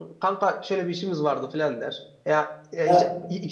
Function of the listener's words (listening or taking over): listening